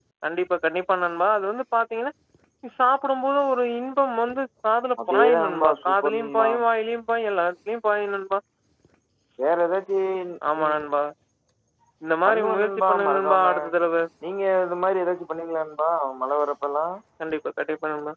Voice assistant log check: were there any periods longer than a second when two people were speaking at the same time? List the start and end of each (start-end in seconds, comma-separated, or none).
5.1-6.5, 12.2-13.5